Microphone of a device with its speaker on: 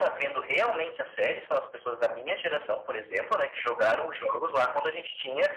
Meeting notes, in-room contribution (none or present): none